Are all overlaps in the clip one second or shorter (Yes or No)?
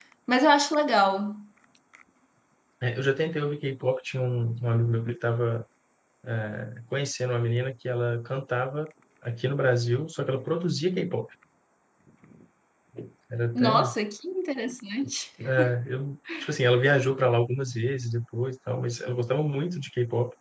Yes